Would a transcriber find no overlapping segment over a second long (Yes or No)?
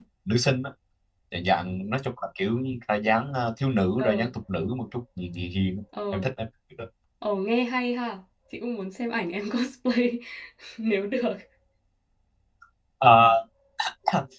Yes